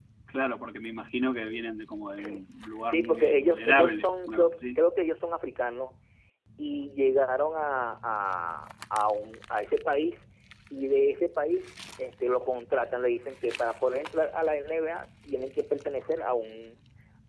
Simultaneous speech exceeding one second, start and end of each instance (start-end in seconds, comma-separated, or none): 2.9-4.8